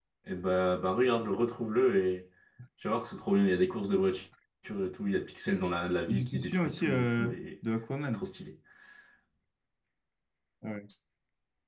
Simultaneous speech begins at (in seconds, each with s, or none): 6.1 s